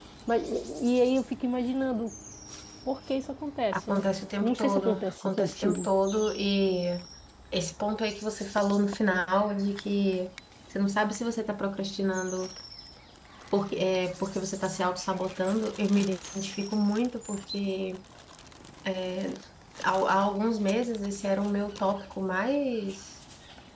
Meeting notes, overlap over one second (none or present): present